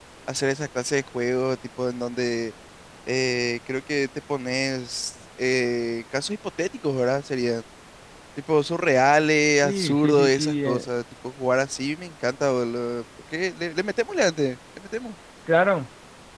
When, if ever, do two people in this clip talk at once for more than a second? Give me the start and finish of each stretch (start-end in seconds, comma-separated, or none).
9.6-10.9